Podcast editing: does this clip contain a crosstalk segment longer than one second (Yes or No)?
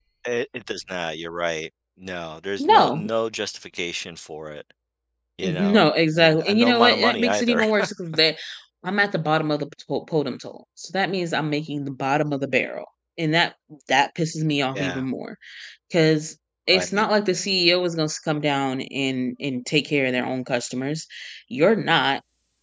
Yes